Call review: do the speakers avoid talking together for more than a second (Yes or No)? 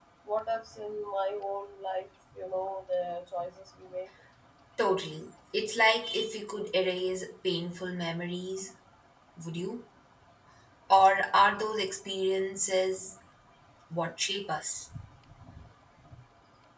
Yes